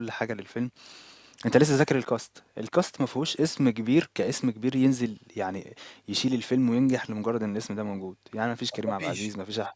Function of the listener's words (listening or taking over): listening